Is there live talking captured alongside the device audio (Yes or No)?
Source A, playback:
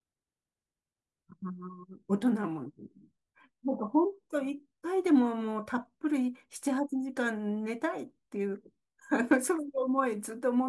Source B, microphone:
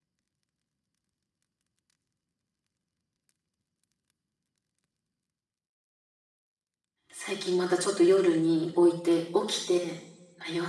Yes